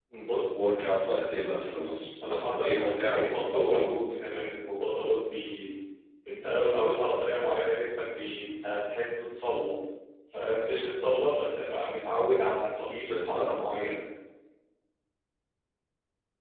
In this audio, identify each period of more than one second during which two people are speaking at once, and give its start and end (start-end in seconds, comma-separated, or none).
2.2-3.9